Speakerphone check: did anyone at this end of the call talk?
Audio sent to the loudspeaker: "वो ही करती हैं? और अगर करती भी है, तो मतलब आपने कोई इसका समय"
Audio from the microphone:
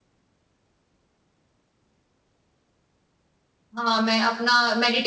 Yes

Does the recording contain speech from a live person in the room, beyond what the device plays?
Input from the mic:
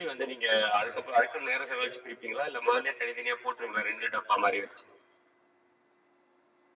No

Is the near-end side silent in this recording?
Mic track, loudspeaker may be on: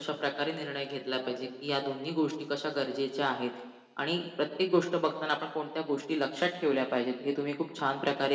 Yes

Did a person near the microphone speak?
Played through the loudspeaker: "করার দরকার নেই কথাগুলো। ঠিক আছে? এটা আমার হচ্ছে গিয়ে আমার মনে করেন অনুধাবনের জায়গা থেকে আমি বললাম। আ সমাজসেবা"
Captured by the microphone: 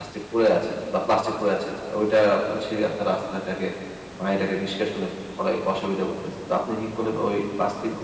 Yes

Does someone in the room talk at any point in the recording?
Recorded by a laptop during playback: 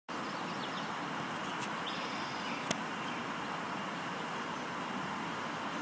No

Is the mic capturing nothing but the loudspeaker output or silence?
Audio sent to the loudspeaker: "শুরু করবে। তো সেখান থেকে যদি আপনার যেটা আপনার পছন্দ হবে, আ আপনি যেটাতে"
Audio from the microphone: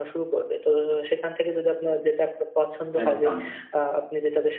No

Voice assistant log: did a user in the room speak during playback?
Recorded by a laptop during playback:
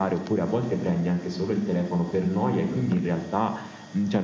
No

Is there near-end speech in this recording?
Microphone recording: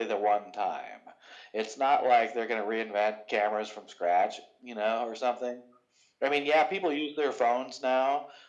No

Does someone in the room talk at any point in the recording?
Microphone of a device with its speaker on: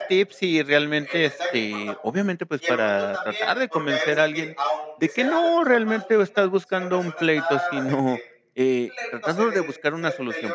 Yes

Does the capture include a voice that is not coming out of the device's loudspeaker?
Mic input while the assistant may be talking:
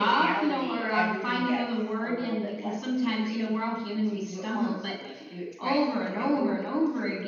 No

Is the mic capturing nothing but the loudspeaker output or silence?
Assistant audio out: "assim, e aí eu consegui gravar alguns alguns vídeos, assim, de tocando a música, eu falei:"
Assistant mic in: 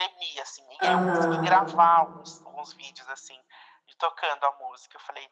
No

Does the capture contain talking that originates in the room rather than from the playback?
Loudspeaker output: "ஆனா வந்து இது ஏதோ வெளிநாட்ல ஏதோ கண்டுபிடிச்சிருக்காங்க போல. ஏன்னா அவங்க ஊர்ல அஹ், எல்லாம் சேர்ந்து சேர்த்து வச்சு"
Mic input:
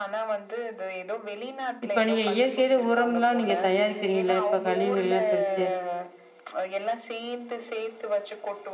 Yes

